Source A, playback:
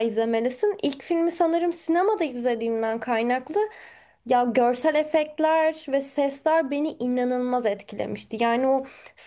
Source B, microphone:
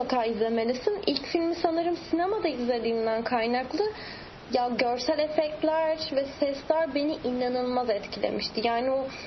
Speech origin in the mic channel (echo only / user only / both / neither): echo only